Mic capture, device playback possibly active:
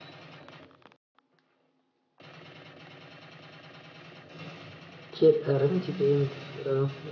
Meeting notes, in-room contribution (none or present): present